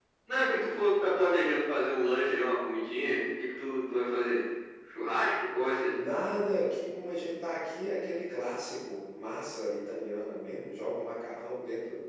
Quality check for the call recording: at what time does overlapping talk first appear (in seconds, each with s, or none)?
none